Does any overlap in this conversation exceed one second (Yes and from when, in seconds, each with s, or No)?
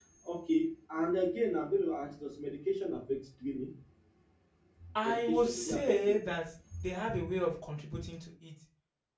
Yes, from 5.0 s